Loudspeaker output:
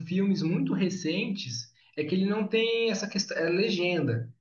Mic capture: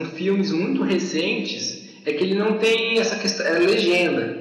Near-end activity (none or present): none